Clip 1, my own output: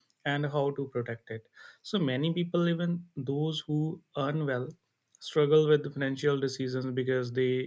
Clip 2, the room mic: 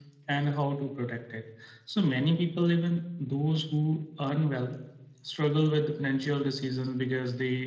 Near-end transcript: none

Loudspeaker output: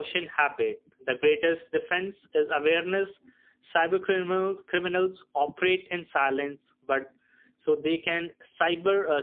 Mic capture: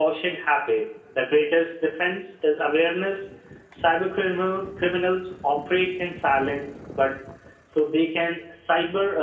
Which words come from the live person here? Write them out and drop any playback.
none

